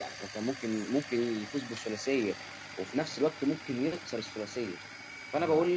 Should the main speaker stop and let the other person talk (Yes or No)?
No